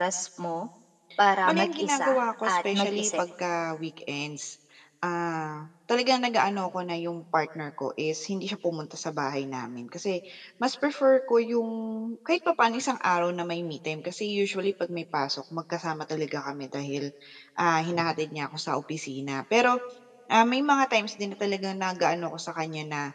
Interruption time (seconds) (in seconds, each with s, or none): 1.4 s